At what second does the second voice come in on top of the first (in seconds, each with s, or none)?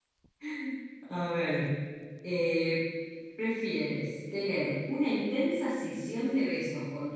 none